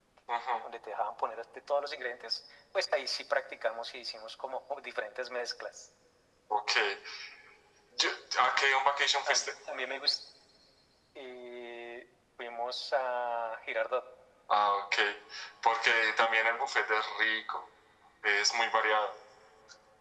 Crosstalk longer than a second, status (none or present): none